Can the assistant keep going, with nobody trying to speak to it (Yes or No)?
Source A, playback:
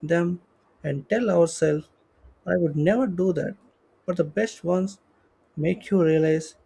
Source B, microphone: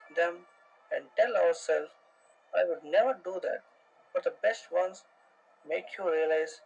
Yes